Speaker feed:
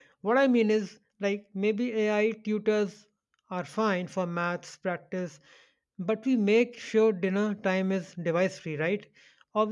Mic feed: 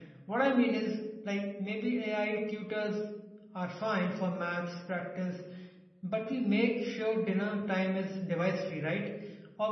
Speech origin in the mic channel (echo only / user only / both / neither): echo only